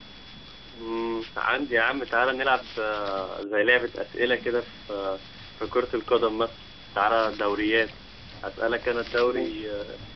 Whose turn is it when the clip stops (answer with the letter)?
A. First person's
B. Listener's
A